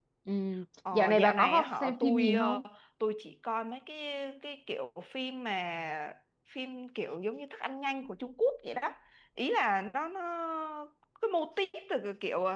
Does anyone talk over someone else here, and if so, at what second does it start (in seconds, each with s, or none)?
0.9 s